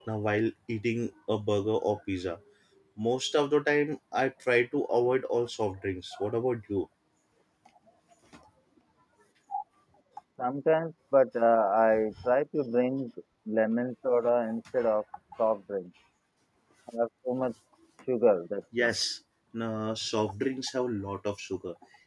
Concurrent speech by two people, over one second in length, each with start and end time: none

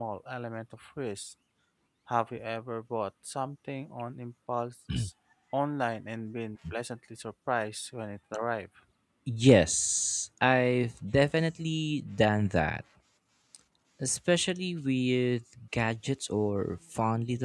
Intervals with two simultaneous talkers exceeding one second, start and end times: none

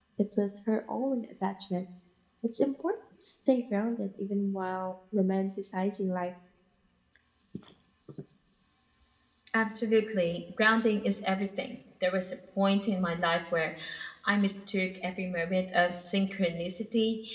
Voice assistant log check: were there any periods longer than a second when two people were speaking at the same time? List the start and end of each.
none

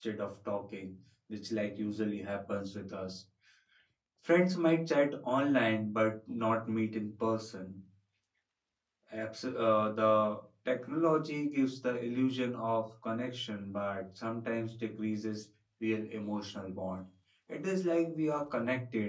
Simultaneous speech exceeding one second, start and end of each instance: none

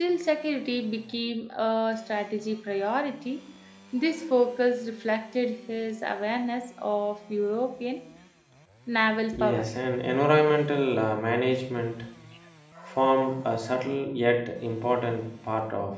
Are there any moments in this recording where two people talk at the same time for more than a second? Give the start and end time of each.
none

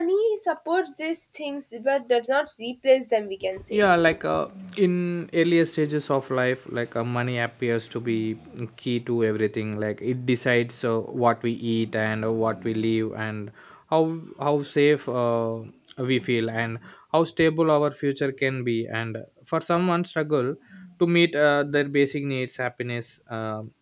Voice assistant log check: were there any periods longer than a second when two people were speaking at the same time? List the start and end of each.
none

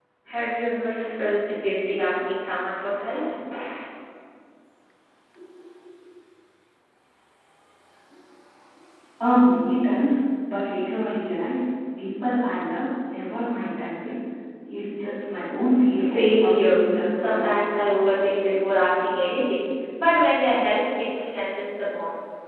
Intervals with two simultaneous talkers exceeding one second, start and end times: 15.9-17.6

